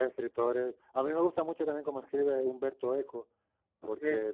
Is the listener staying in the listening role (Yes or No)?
Yes